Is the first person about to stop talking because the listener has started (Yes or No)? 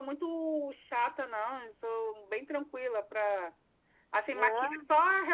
No